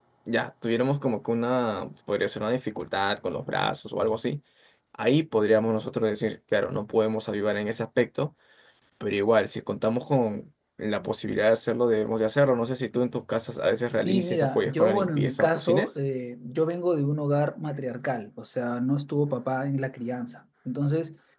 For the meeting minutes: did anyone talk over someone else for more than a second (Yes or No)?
Yes